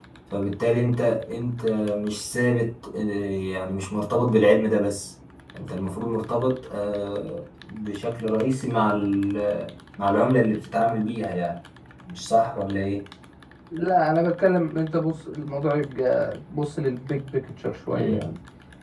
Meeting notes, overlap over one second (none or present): none